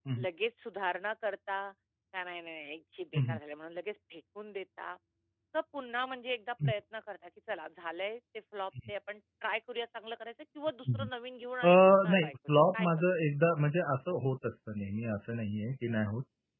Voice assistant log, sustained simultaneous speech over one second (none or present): present